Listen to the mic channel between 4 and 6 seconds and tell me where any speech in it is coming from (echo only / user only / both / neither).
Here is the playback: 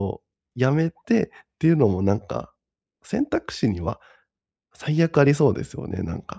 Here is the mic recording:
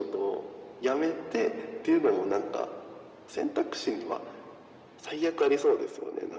echo only